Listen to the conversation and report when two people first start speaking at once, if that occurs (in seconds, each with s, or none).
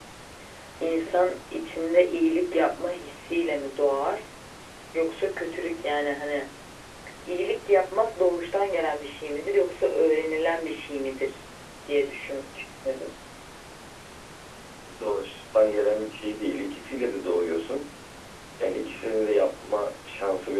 none